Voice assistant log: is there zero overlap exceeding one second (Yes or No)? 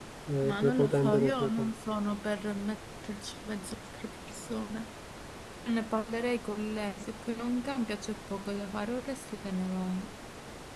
No